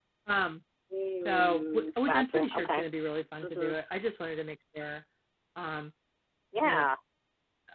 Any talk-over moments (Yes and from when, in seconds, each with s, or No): Yes, from 1.2 s